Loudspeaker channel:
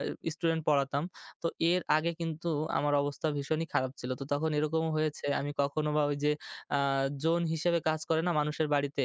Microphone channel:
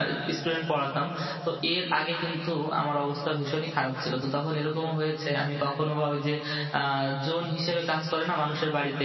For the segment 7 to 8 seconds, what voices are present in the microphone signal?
echo only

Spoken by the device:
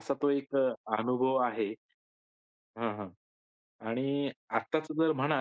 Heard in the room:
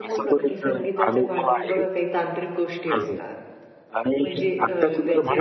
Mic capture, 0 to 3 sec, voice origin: both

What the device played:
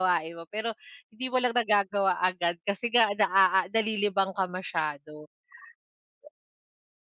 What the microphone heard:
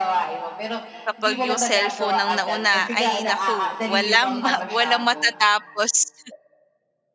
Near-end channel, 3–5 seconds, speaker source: both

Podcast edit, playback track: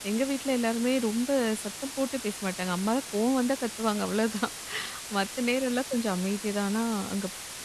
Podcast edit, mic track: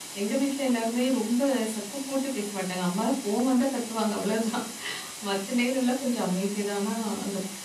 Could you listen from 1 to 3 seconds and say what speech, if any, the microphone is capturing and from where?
echo only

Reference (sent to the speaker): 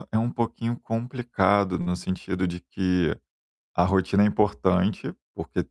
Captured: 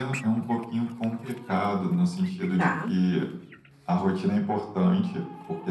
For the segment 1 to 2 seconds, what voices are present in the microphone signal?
echo only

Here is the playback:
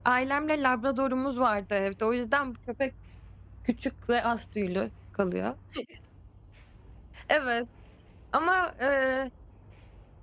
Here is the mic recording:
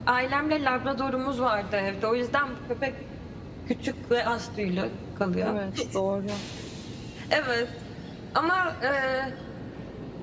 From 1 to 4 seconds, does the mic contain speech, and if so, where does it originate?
echo only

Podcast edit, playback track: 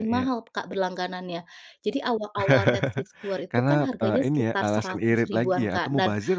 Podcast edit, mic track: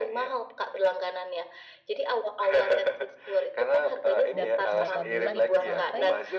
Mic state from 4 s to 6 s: both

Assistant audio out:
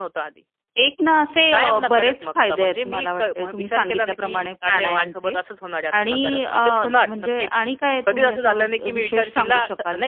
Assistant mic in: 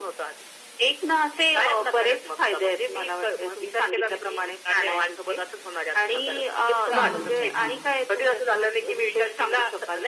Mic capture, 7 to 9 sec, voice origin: both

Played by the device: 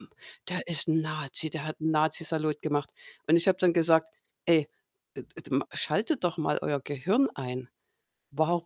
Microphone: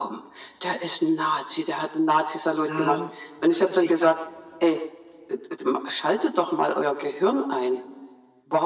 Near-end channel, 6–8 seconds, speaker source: echo only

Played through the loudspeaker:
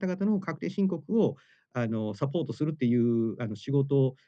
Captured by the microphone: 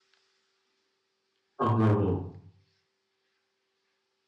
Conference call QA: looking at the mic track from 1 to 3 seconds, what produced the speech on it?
user only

